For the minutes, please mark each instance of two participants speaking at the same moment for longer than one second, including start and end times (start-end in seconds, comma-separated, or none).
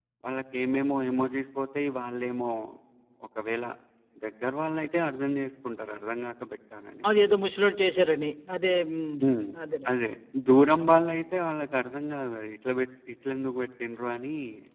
none